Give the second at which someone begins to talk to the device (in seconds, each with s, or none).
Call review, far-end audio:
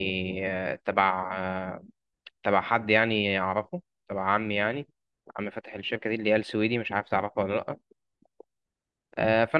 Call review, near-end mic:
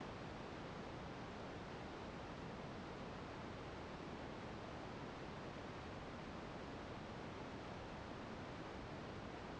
none